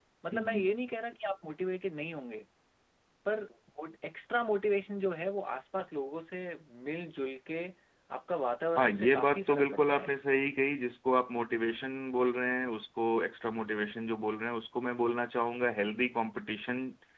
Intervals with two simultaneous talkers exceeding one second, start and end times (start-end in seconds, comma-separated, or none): 8.8-10.1